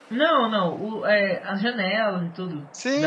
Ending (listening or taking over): taking over